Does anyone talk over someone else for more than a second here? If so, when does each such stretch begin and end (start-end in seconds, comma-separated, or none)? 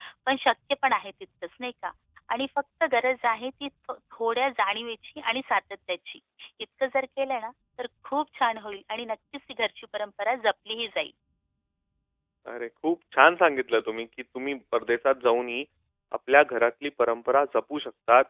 none